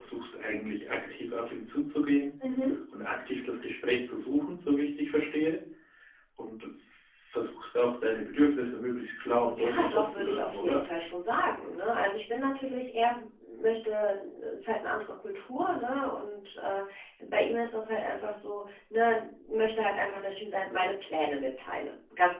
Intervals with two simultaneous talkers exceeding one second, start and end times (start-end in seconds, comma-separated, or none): 9.4-10.8